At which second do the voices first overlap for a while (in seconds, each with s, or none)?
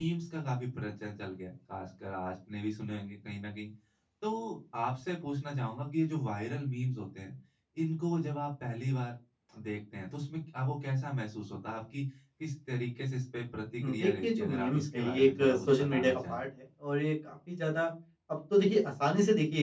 13.8 s